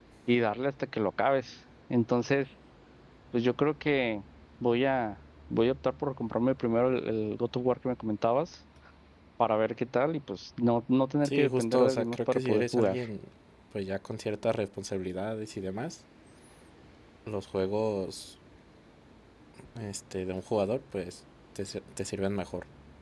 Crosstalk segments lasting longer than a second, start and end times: 11.2-13.0

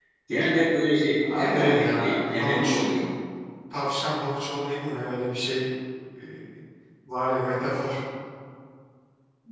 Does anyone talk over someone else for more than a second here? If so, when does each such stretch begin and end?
1.2-2.9

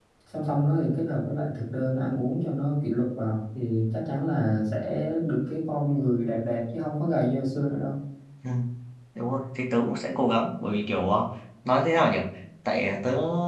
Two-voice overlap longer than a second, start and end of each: none

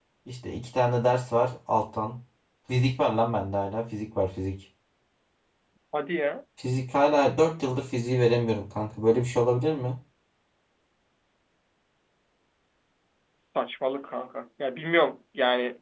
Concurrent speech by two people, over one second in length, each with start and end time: none

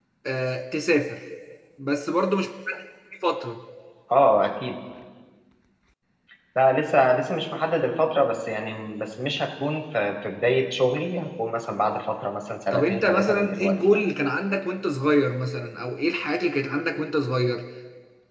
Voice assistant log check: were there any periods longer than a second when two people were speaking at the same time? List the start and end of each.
12.7-14.0

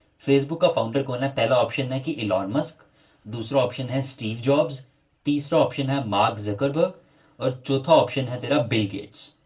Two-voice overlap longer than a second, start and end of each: none

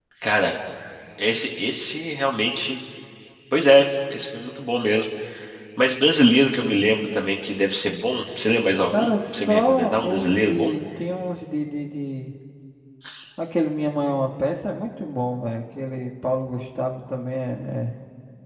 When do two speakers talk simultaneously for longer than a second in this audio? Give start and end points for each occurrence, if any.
8.9-10.7

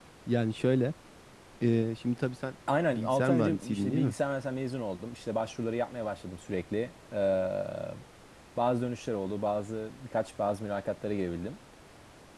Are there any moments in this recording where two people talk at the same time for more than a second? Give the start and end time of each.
2.9-4.1

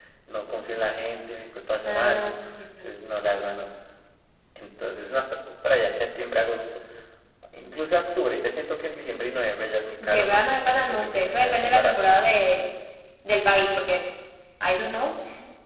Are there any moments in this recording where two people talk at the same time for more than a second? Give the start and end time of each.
10.0-12.1

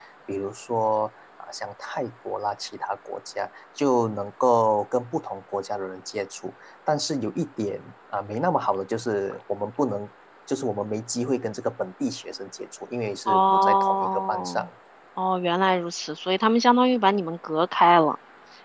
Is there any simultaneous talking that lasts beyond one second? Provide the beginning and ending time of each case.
13.3-14.7

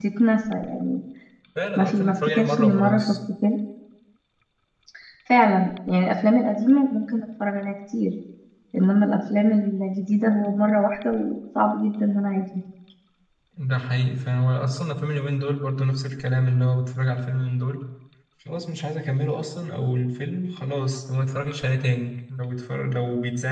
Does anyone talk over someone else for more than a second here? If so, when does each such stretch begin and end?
1.8-3.2

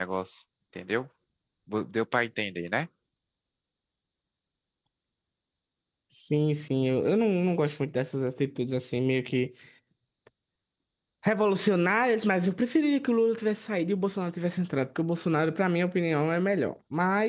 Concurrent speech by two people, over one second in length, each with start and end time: none

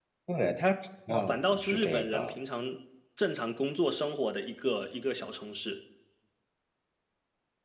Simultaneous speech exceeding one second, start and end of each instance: 1.1-2.3

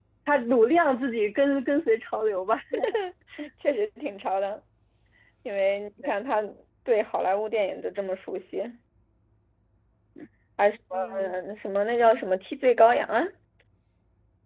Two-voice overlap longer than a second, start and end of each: none

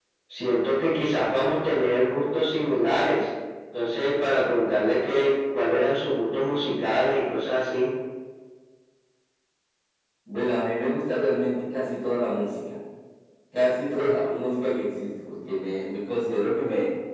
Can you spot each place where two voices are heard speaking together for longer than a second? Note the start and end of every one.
none

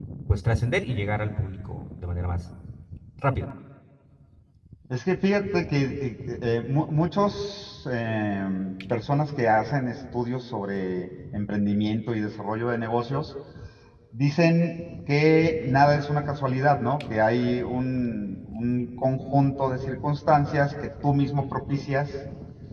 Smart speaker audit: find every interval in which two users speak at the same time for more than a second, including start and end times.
none

